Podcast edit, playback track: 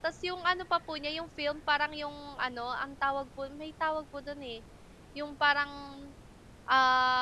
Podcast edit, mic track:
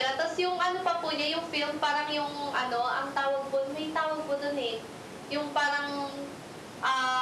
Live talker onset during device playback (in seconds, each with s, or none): none